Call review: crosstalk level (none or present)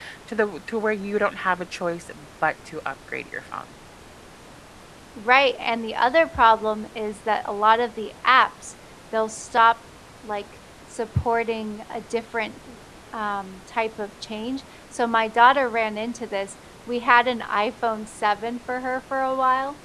none